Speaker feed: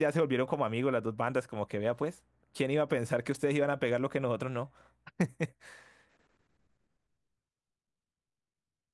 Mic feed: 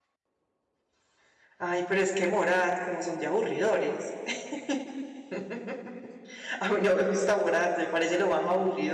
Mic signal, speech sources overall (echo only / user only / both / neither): user only